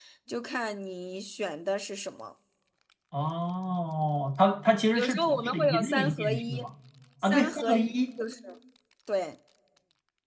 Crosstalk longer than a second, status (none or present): present